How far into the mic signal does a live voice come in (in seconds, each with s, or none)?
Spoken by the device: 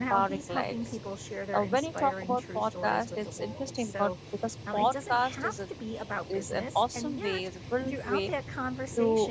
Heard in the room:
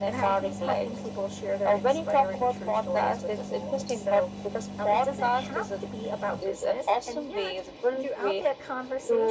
none